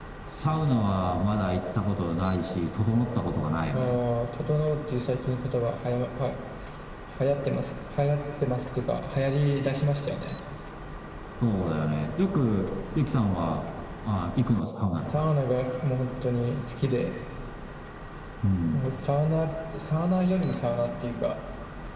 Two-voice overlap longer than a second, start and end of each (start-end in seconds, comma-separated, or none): none